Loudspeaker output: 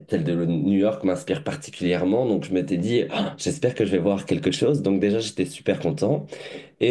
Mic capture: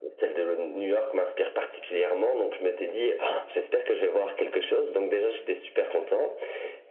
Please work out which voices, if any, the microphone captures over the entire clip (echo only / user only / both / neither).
echo only